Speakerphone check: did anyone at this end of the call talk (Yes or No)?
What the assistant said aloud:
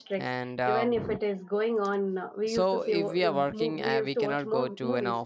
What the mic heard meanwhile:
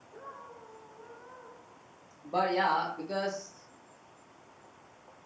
Yes